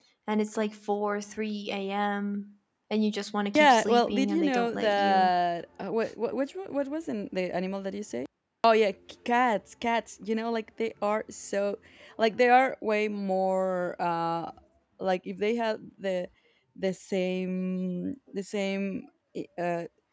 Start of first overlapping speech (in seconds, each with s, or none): 3.5 s